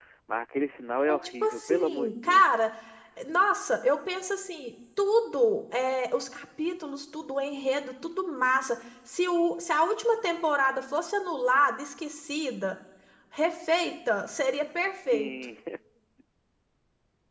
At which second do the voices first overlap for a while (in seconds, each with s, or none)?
1.1 s